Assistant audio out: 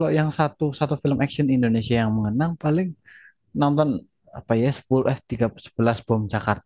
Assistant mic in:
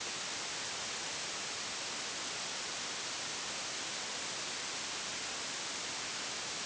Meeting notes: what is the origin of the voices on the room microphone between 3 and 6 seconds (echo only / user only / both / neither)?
neither